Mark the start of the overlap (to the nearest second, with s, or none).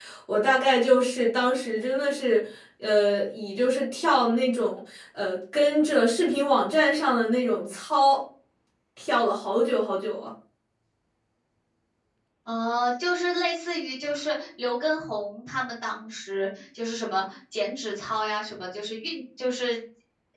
none